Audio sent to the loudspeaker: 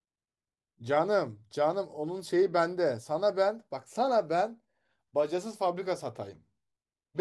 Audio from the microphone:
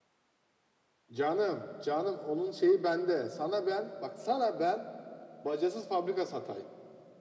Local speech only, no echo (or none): none